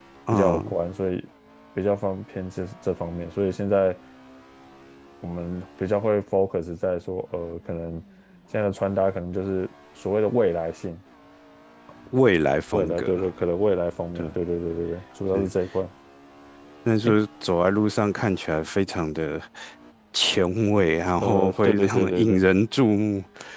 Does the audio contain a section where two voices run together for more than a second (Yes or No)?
Yes